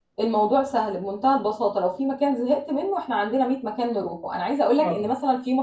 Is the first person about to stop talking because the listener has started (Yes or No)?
No